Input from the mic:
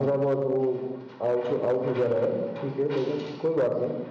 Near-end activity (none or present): none